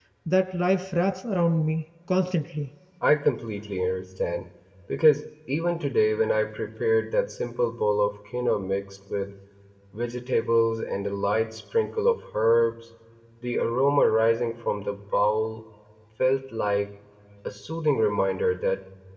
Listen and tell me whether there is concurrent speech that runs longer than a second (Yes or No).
No